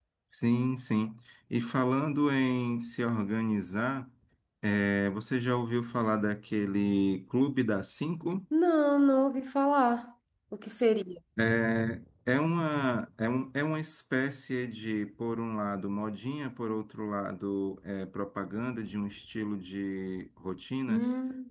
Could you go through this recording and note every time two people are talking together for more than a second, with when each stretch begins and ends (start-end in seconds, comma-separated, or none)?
none